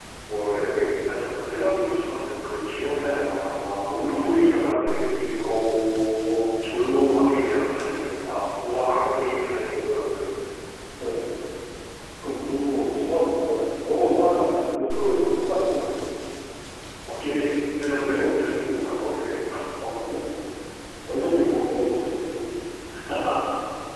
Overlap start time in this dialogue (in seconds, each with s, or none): 3.0 s